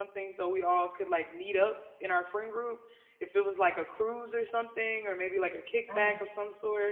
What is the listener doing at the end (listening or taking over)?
listening